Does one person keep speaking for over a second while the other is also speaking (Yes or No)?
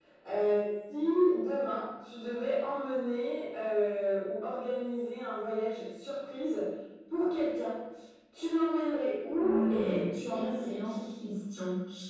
Yes